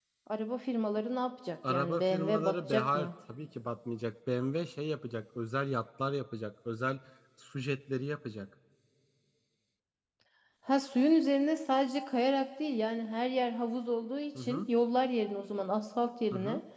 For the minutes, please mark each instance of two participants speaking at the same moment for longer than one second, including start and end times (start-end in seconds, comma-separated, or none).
1.7-3.1